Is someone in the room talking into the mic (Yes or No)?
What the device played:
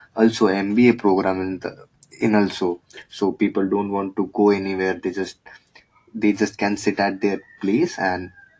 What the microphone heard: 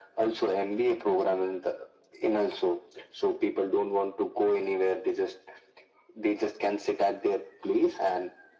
No